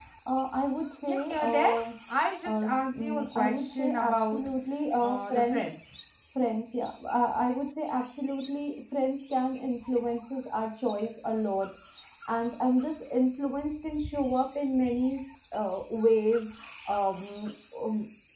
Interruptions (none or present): present